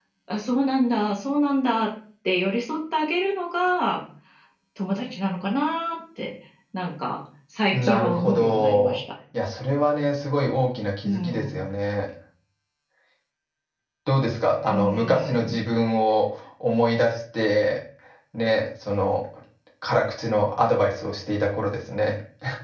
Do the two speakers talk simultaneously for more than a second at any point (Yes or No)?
Yes